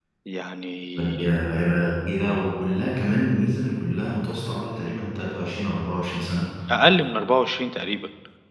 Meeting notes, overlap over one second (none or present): none